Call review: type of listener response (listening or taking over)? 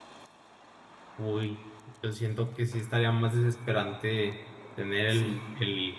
listening